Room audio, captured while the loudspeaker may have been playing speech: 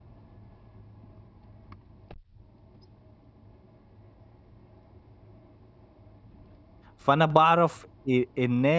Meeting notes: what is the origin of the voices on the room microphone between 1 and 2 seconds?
neither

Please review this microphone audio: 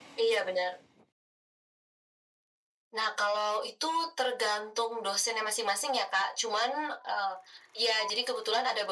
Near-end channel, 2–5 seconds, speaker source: echo only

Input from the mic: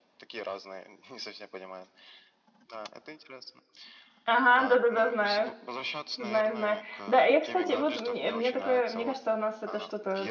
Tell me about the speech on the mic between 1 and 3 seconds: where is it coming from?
echo only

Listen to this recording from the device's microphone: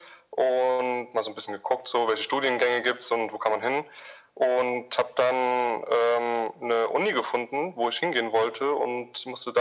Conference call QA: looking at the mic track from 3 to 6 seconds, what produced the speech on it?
echo only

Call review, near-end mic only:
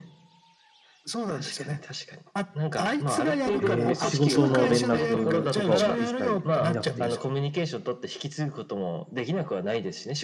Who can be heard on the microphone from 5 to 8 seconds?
both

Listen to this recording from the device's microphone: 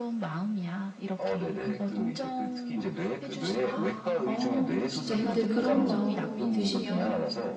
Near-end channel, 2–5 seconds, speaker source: both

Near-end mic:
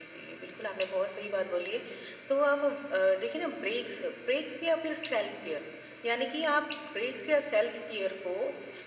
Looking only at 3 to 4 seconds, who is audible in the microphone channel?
echo only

